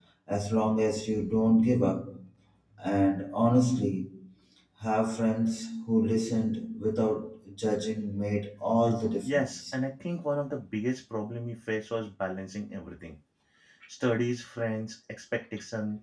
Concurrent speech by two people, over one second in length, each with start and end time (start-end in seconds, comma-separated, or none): none